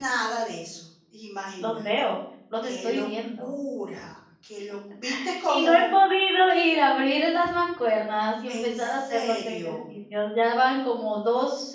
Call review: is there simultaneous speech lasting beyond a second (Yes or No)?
Yes